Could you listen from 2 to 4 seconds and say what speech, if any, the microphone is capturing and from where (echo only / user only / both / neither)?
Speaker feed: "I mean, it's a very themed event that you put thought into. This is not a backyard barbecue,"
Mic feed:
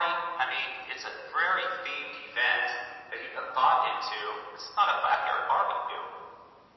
echo only